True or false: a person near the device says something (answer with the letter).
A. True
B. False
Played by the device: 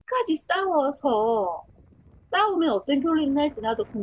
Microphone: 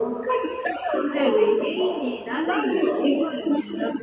A